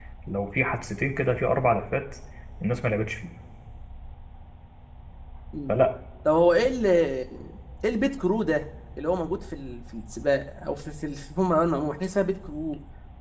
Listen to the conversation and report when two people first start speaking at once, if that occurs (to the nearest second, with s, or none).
none